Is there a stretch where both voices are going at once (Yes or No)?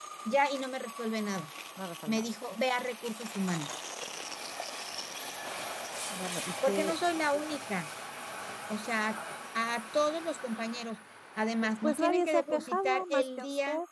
Yes